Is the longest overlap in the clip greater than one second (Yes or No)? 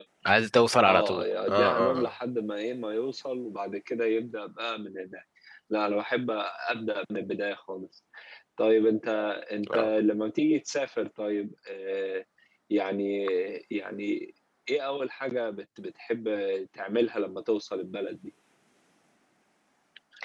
Yes